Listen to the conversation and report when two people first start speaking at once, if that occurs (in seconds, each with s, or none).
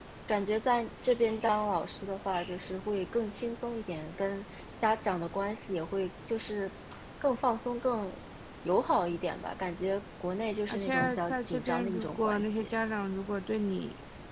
10.7 s